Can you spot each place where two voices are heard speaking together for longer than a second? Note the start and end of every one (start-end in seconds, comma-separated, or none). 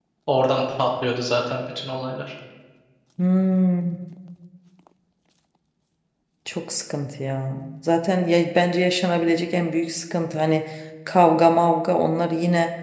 none